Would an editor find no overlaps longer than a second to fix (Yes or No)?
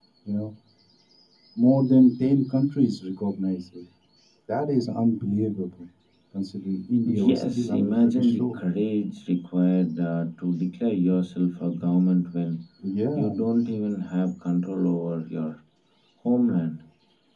No